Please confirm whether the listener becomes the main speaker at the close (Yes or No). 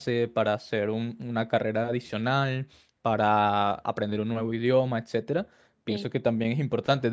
No